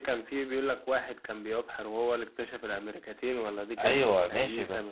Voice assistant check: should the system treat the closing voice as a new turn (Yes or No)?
Yes